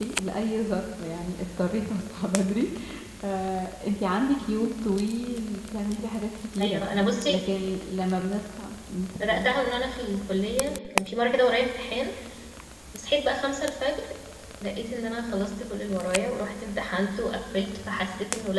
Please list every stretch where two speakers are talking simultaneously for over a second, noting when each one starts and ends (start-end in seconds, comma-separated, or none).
none